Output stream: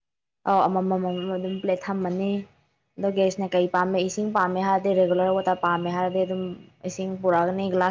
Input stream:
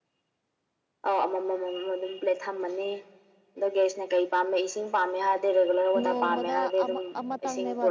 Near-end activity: present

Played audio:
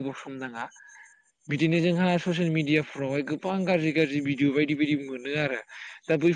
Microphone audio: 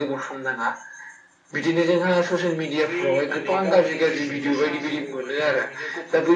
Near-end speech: present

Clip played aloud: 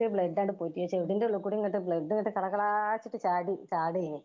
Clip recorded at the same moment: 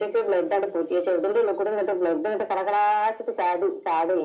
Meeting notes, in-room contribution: none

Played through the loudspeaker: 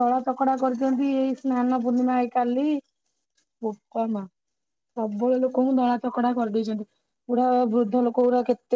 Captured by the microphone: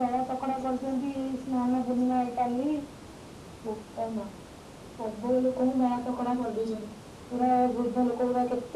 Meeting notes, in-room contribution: none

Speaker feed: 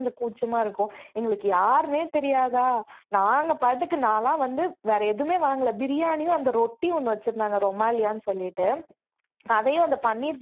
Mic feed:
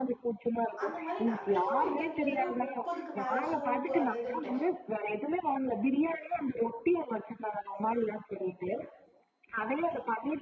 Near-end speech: present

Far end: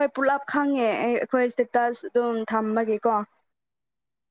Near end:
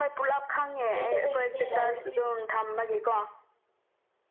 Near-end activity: present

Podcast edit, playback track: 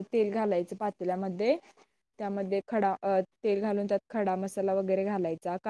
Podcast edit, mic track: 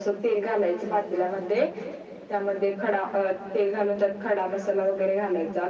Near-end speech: none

